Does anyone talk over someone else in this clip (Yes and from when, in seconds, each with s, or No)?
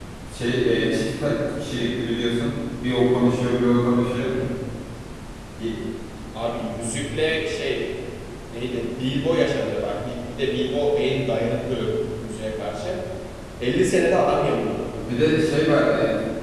No